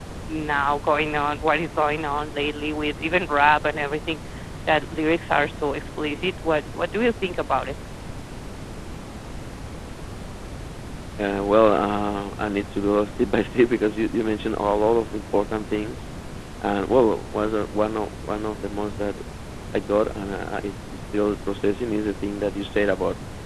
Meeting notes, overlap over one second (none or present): none